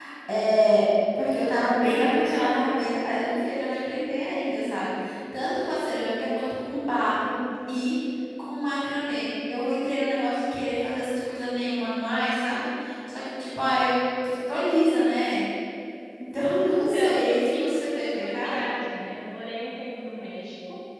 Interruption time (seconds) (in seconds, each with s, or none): 16.7 s